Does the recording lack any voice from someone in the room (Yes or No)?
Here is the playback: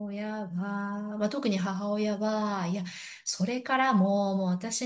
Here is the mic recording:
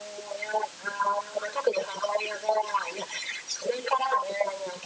Yes